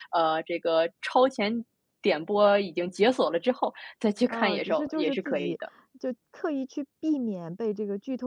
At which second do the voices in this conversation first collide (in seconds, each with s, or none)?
4.3 s